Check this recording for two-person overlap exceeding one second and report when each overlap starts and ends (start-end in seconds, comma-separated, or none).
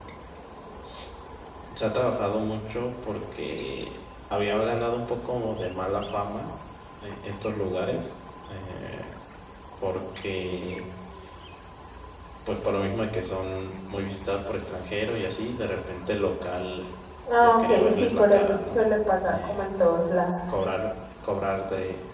17.4-18.8